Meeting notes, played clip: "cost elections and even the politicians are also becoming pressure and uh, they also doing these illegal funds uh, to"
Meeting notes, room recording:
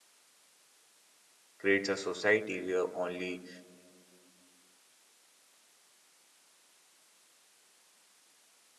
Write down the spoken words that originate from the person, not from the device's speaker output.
creates a society where only

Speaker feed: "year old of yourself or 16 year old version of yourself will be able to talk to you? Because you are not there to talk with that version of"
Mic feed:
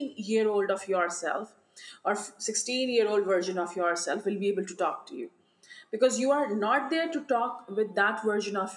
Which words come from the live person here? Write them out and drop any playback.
none

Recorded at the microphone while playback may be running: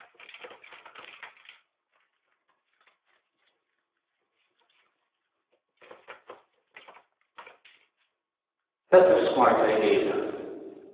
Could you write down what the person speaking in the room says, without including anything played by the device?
That's a smart idea.

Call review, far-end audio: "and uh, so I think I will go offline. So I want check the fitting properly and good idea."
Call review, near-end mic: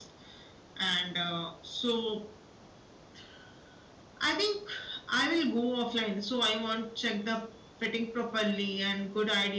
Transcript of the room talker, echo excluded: none

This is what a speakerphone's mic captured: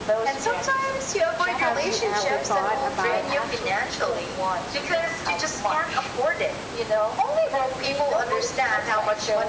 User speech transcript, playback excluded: have you ever thought about

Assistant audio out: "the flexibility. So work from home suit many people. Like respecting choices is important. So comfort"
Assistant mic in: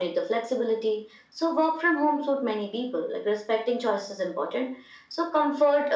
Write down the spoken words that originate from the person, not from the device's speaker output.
none

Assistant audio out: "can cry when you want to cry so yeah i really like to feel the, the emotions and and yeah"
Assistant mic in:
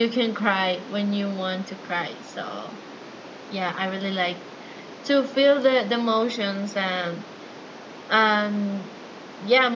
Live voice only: none

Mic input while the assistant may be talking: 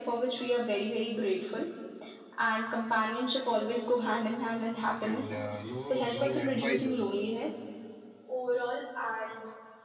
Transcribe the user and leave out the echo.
and uh, you know, giving advices, uh,

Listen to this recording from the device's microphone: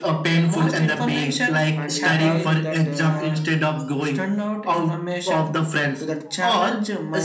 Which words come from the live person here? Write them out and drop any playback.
and you have to that uh,

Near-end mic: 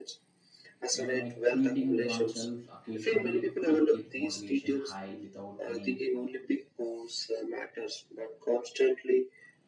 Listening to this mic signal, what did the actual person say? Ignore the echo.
You know, like treating oneself occasionally, it keeps motivation high without any

